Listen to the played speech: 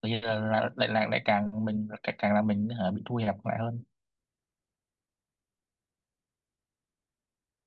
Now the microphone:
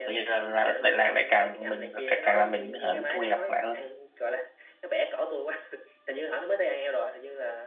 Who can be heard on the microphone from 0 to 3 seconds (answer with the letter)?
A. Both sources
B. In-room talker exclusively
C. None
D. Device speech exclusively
A